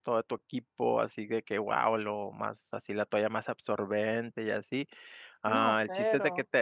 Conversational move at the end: listening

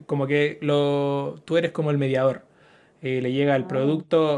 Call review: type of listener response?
listening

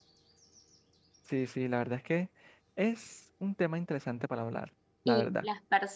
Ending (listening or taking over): taking over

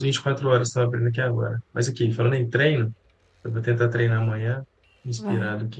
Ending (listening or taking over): listening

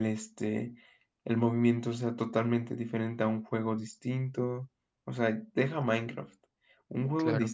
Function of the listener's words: listening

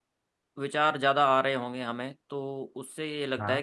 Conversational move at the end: listening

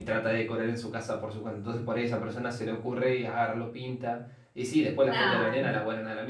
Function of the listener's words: listening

